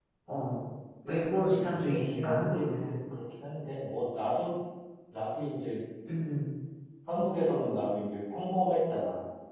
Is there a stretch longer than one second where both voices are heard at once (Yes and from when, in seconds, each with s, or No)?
Yes, from 1.1 s